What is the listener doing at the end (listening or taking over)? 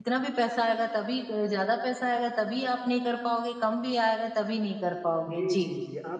taking over